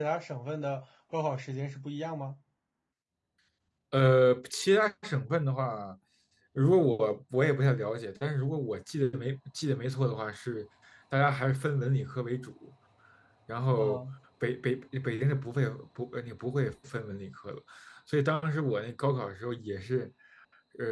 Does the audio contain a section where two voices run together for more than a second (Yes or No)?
No